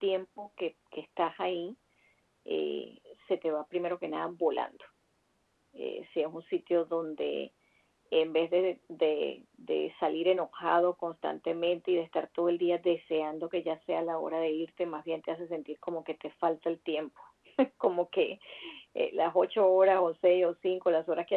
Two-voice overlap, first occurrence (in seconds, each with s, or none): none